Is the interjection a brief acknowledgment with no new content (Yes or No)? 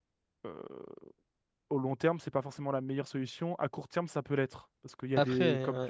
Yes